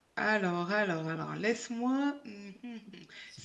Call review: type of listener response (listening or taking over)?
listening